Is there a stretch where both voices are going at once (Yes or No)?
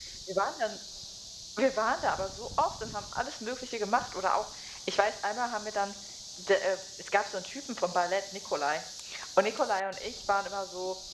No